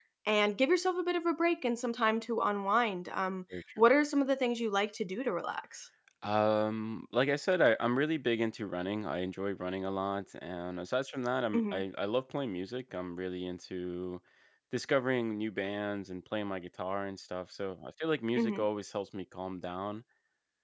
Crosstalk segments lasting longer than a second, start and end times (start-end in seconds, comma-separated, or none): none